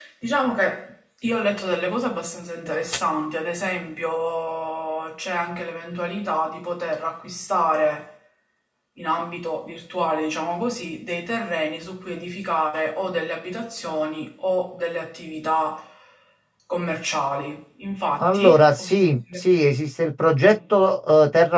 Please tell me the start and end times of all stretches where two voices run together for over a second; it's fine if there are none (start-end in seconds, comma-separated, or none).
18.2-19.6